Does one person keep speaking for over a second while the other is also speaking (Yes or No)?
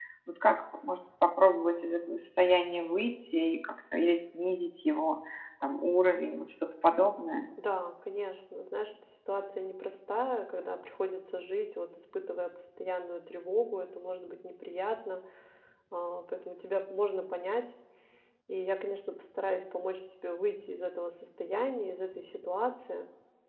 No